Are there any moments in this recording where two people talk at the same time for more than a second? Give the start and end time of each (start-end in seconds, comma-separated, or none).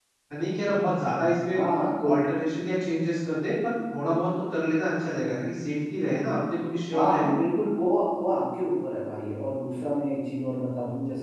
none